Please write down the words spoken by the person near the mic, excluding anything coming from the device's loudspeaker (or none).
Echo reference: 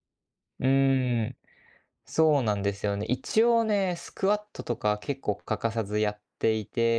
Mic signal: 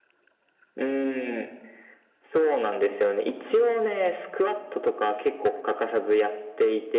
none